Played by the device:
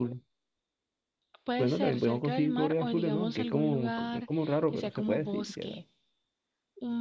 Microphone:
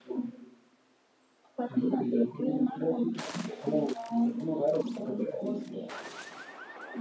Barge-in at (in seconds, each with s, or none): none